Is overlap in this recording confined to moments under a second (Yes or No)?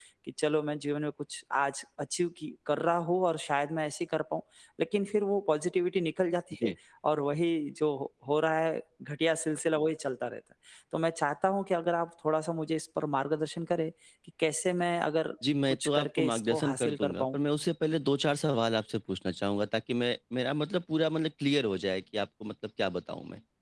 No